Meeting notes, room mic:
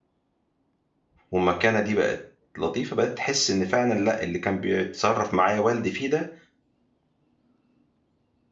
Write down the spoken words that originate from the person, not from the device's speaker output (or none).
والمكانة دي بقت لطيفة، بقيت تحِس إن فعلًا لأ، اللي كان بيتصرّف معايا والدي فيه ده،